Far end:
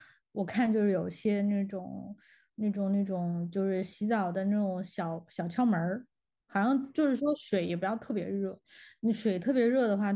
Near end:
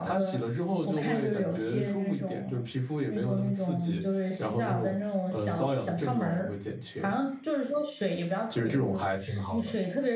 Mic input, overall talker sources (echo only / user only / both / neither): both